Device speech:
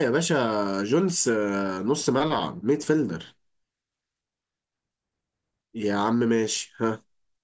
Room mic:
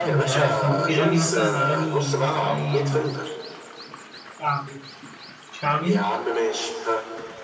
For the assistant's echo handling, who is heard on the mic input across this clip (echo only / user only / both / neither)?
both